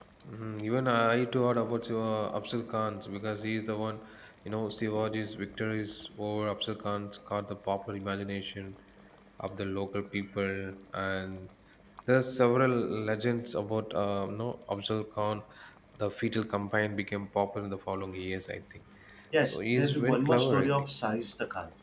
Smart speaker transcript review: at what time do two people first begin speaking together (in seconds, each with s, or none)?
19.4 s